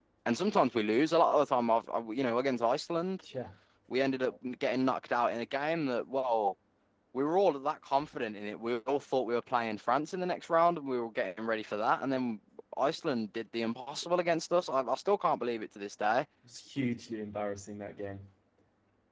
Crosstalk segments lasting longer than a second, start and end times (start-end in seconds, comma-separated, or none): none